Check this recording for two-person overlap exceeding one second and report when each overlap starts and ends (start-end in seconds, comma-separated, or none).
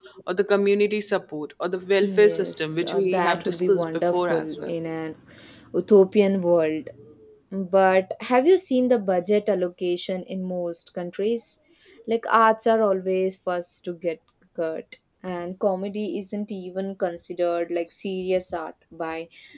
2.1-4.7